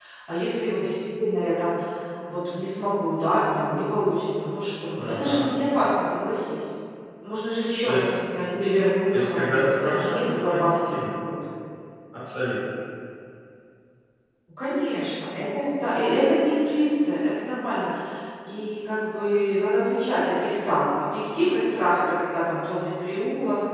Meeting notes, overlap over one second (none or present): present